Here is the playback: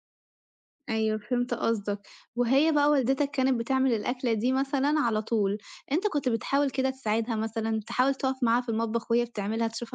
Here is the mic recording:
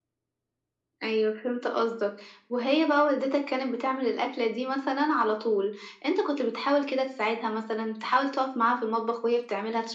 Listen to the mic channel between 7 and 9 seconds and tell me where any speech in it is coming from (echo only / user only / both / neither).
echo only